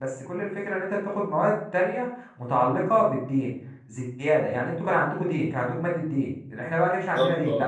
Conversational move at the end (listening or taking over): listening